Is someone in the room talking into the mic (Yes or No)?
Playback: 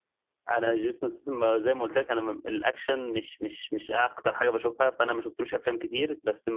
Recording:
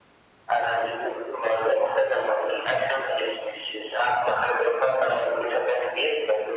No